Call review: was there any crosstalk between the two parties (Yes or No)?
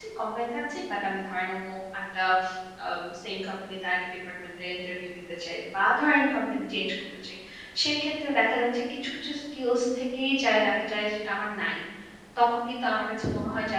No